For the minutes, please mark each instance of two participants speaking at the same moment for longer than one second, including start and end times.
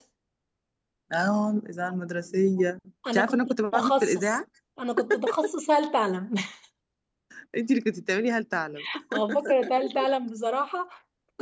3.1-4.4

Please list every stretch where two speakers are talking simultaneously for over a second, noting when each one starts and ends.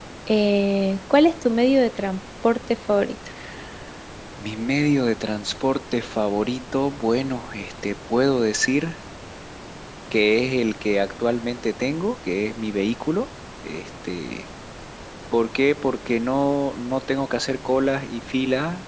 none

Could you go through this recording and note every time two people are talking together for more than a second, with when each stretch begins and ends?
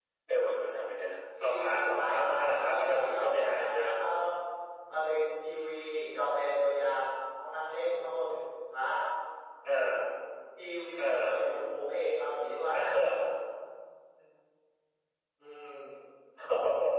1.4-3.9

